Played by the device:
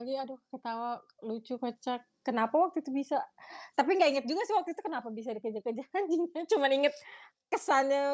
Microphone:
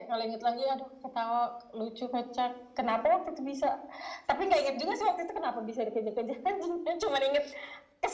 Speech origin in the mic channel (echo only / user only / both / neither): echo only